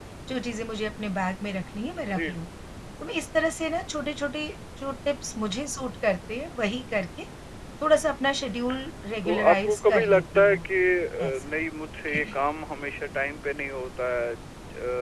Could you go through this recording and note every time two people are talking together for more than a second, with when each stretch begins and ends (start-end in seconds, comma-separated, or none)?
9.2-10.6